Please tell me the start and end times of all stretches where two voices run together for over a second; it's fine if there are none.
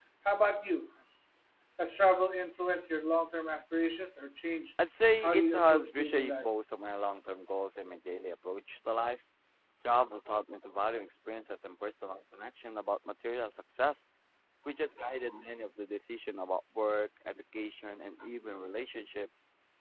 5.2-6.4

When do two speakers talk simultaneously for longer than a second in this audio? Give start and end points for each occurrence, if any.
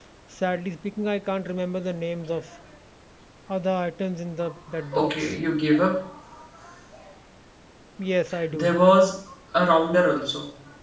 none

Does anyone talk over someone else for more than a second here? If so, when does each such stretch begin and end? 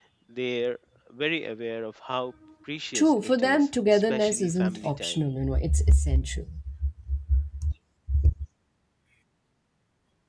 2.9-5.2

